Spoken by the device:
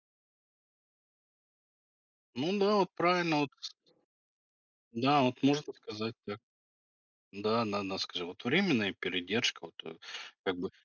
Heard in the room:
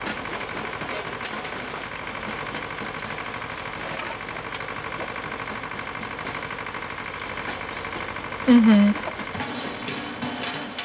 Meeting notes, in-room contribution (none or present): present